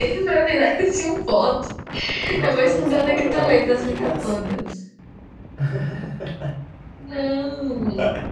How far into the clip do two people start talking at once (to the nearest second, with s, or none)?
2 s